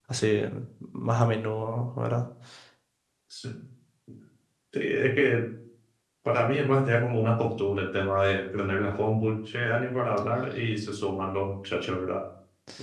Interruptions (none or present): none